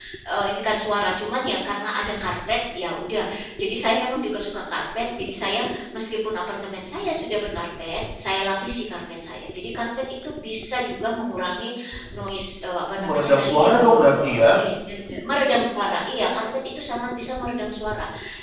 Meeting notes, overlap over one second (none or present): present